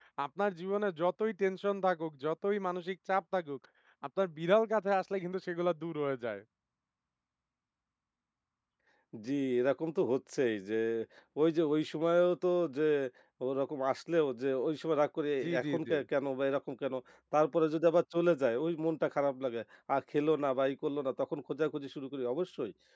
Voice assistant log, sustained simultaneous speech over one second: none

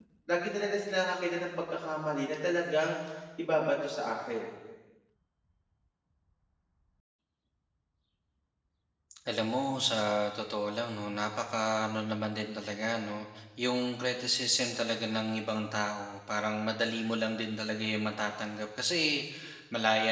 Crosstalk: none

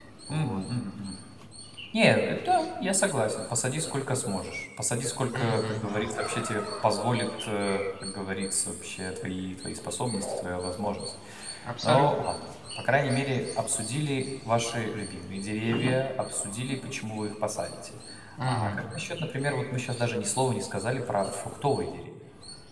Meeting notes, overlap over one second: none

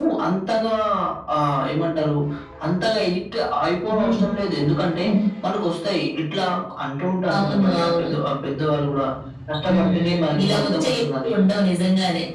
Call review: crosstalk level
present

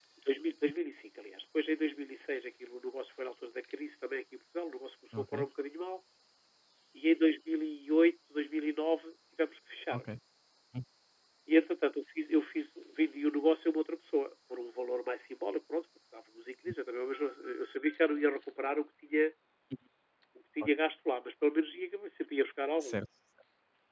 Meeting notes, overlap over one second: none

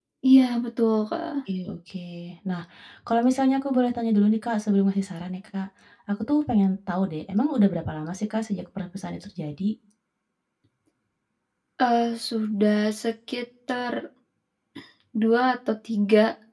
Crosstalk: none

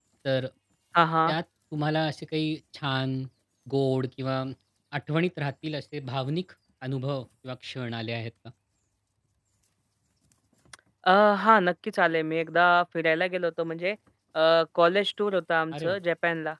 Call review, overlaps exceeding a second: none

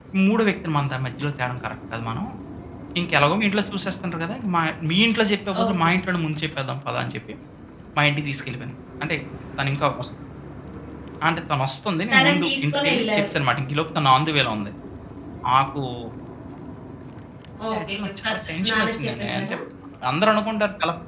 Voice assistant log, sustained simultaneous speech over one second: present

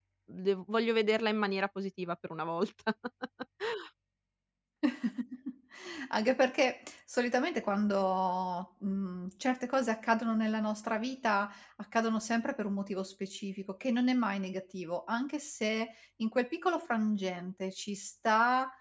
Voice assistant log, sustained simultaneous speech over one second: none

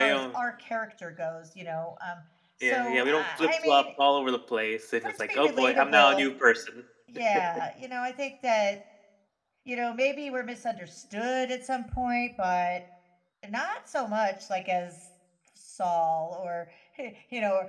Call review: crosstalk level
present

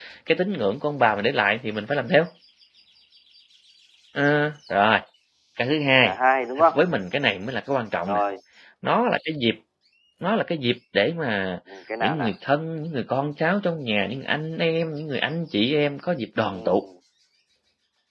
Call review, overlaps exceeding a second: none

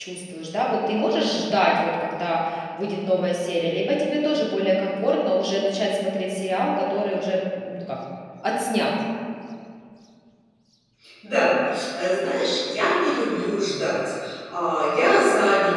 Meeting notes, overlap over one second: none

